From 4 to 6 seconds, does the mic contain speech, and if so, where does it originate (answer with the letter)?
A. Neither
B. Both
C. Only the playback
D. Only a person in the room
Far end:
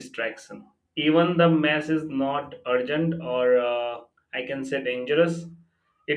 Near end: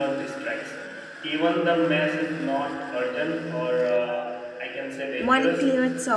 B